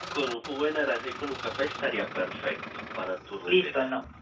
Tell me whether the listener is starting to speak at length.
Yes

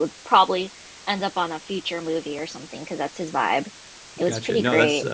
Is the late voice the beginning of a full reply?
Yes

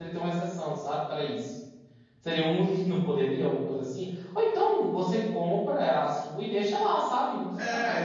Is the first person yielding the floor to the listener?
Yes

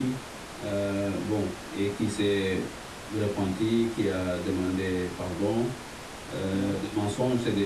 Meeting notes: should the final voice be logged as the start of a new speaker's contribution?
No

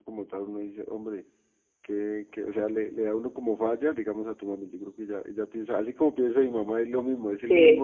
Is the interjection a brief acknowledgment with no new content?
Yes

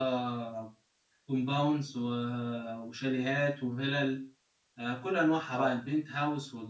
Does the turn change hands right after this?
No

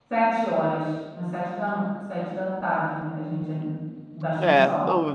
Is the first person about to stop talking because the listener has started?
Yes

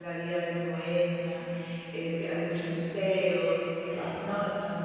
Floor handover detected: No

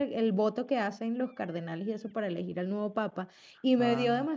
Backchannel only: Yes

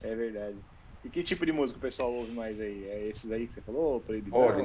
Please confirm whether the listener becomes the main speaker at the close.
Yes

